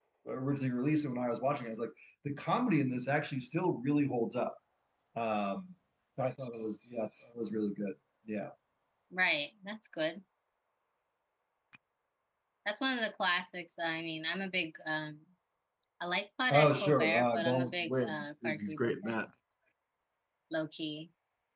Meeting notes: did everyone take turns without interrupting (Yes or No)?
No